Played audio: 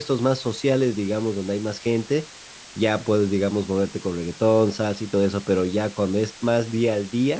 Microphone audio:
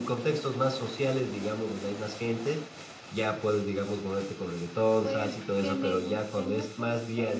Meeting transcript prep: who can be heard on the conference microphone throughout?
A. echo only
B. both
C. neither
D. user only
B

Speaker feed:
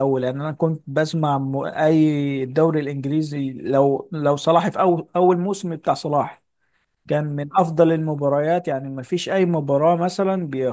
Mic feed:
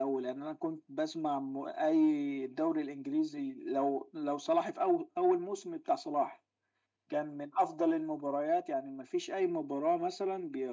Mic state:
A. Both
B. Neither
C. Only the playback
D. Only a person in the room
C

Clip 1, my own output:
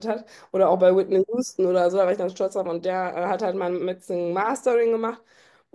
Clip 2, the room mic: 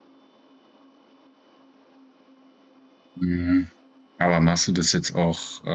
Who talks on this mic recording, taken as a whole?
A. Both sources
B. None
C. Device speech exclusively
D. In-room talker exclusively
D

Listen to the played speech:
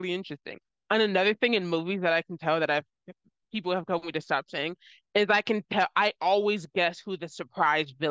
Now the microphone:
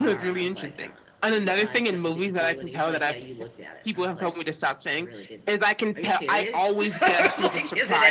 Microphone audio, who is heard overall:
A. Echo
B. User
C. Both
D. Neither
C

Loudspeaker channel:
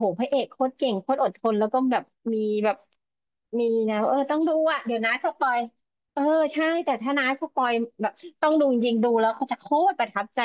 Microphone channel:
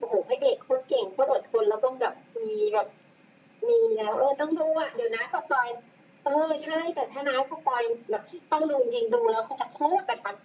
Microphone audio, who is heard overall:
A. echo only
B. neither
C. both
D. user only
A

